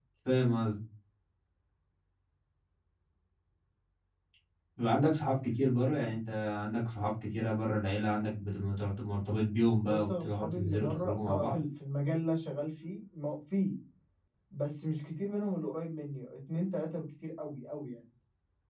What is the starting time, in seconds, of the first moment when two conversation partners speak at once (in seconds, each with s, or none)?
9.8 s